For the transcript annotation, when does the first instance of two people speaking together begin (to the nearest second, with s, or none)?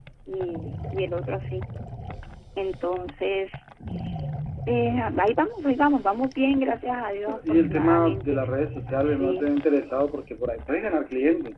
7 s